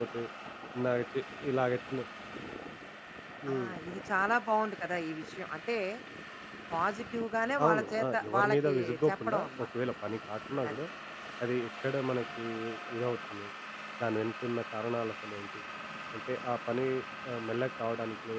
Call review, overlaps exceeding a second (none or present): present